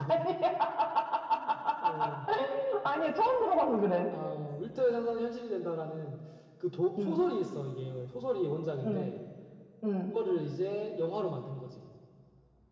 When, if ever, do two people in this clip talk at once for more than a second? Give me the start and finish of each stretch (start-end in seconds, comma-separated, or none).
none